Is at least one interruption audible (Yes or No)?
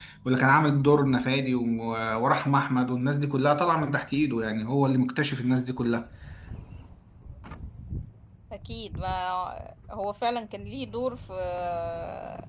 No